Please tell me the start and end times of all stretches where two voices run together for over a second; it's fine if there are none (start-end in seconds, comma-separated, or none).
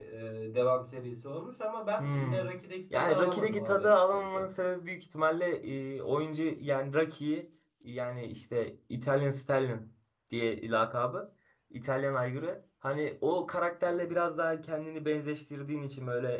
2.9-4.5